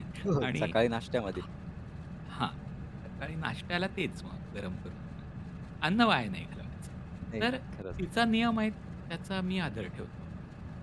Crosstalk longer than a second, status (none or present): none